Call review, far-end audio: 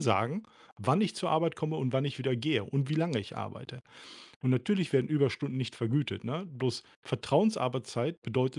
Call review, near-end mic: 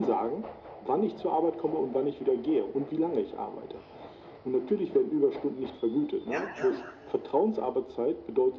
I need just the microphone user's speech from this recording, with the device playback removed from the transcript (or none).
Ja, ja.